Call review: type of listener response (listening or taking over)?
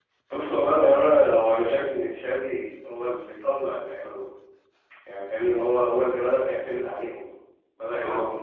listening